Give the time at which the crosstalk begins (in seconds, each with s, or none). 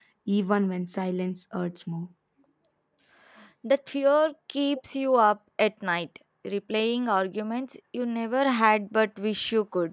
none